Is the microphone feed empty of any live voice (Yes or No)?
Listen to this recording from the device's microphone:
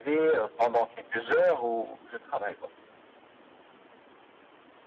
Yes